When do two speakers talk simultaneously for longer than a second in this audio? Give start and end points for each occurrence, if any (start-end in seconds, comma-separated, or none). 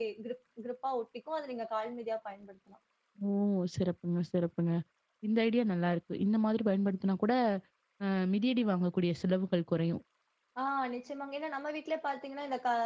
none